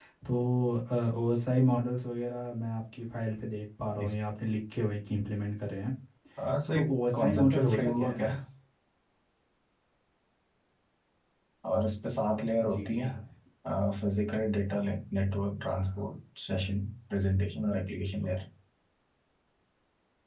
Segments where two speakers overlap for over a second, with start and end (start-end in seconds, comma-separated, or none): 6.7-8.3